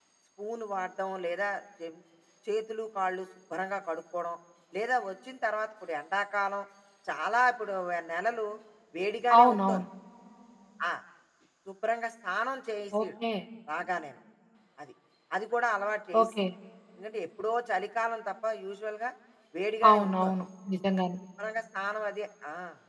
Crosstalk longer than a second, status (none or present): none